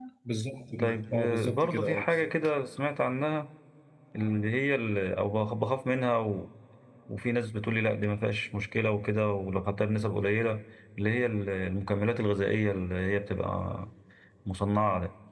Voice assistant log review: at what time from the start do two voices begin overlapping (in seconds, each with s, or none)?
0.8 s